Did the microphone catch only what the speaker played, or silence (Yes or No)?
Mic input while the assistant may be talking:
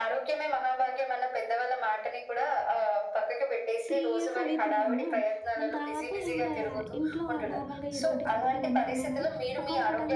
No